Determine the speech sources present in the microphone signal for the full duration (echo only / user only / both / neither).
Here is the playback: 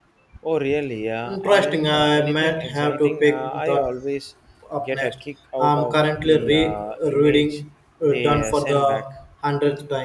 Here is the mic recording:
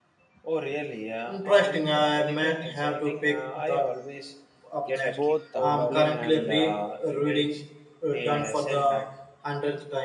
both